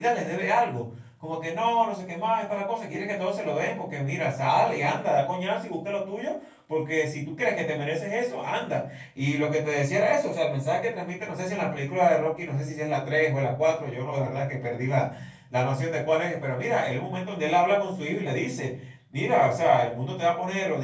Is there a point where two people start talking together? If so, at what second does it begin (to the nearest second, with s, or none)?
none